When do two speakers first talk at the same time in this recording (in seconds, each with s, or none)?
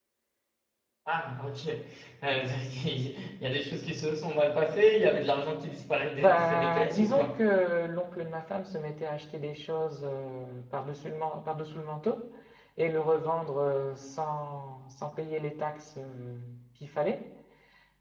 6.2 s